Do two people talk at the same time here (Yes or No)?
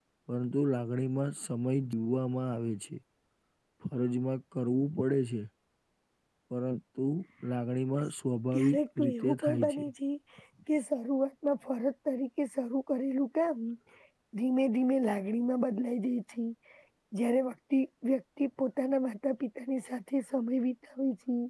Yes